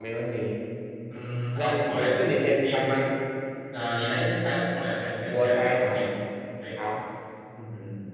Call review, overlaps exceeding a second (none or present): present